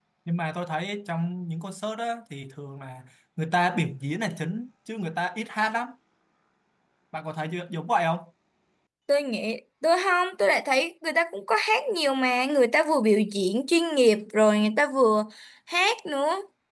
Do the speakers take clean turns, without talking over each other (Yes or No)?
Yes